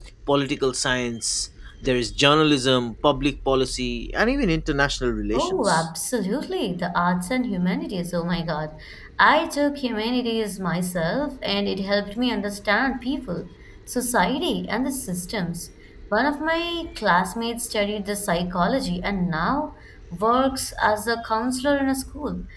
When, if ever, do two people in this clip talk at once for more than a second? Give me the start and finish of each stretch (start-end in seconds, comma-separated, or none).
none